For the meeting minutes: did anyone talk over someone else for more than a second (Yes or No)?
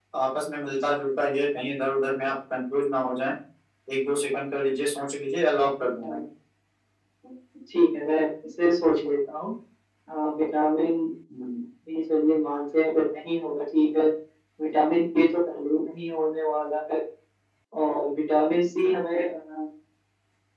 No